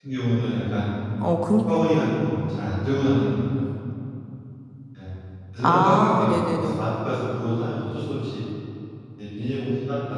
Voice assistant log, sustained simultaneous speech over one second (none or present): present